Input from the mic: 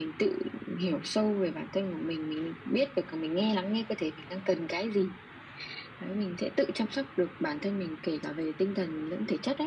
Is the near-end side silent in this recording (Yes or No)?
Yes